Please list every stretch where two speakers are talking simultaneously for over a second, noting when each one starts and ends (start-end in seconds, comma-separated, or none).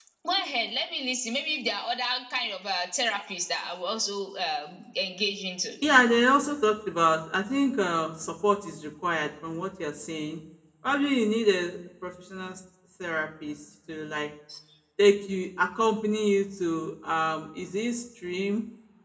none